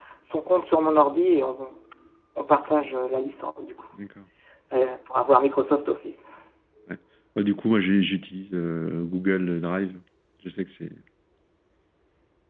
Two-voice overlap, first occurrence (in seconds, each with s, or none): none